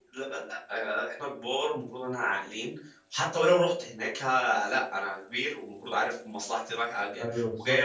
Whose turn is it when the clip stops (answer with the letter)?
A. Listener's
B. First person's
A